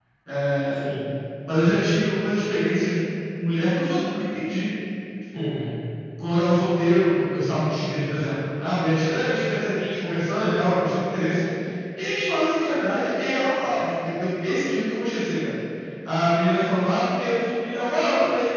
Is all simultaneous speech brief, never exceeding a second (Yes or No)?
Yes